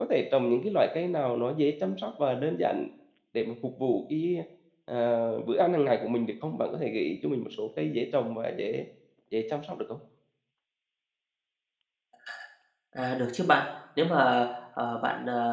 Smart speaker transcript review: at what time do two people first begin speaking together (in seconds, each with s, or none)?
none